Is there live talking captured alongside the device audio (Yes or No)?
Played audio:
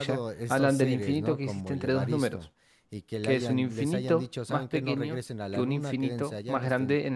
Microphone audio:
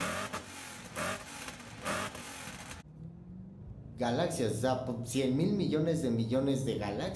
Yes